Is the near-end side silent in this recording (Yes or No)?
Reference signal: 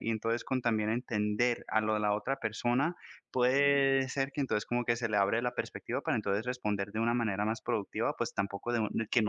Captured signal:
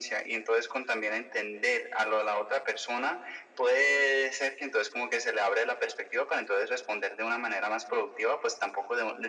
Yes